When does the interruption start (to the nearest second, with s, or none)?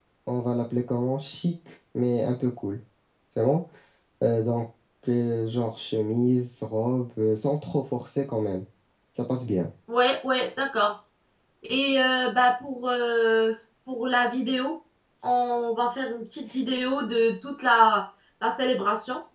none